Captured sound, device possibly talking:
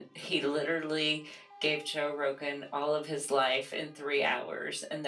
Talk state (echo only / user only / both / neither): echo only